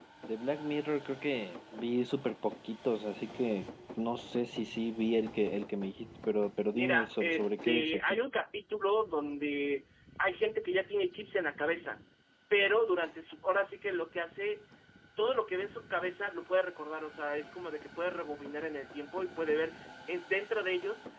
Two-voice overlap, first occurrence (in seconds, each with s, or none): 6.7 s